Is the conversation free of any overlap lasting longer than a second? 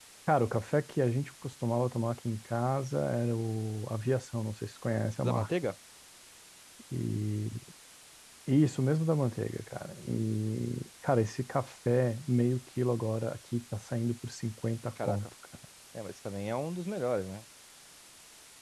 Yes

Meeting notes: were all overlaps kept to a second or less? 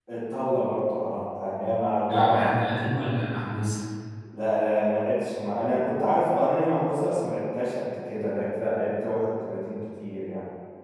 Yes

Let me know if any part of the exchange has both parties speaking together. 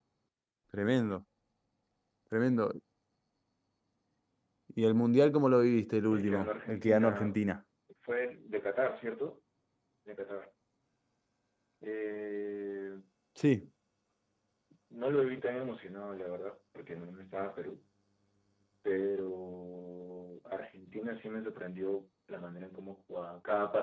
Yes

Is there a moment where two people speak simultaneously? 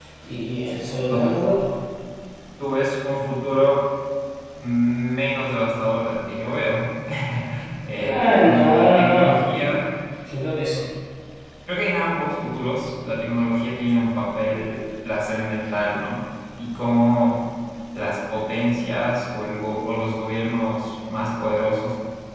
Yes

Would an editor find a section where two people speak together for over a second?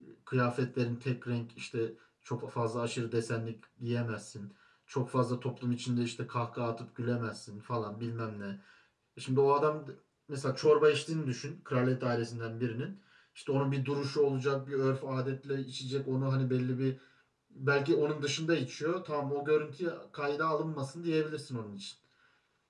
No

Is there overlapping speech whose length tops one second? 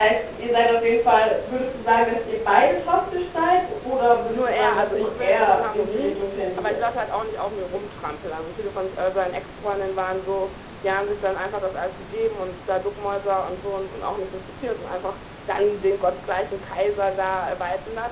Yes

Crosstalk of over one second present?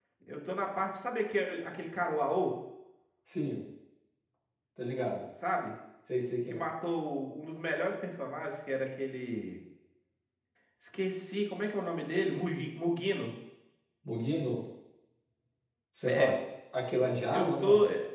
No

